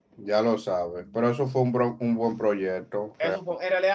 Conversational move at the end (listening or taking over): taking over